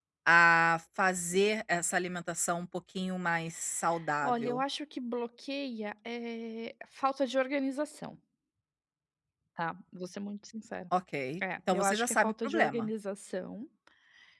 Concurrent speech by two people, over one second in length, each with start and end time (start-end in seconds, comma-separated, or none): 11.7-12.9